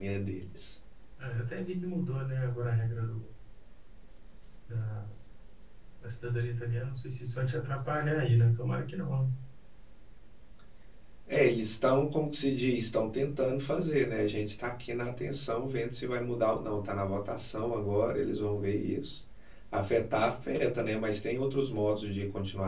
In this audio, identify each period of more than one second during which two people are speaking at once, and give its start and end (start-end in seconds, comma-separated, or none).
none